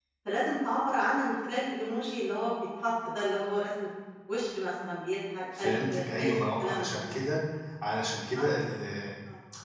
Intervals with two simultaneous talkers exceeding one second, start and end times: 5.6-7.2

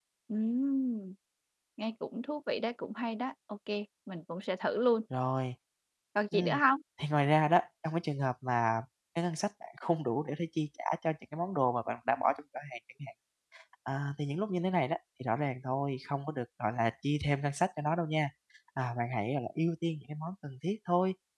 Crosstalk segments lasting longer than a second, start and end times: none

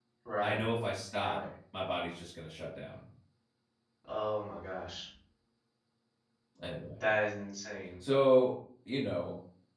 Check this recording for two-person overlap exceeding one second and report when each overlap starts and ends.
none

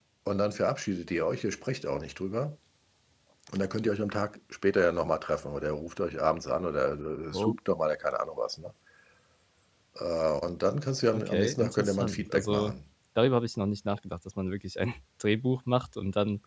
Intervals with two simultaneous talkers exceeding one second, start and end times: 11.1-12.7

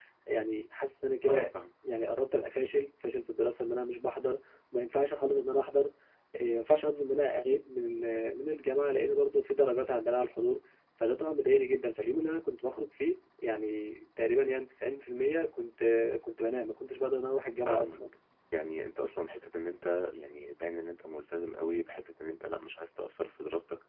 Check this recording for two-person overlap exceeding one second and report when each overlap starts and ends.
none

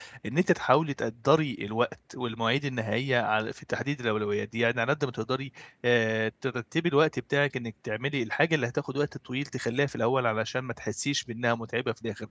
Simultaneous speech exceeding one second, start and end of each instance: none

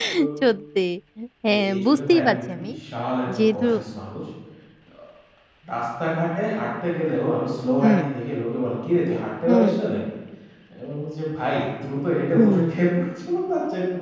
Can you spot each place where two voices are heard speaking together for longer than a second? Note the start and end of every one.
1.5-2.7

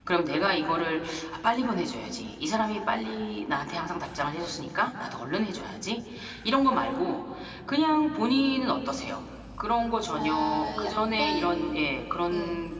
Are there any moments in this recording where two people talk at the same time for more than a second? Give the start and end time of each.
10.2-11.9

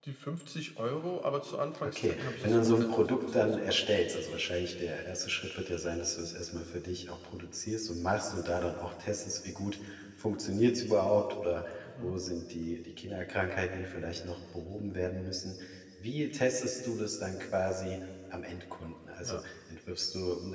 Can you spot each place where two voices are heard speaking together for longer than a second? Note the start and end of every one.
1.8-3.8

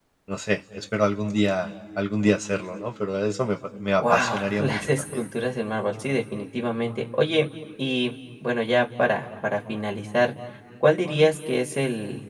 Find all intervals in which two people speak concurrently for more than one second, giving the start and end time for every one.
4.0-5.2

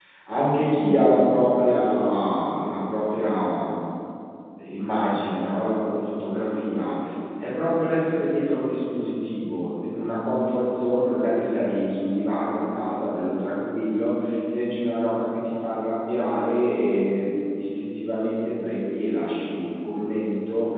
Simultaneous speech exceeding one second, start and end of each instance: none

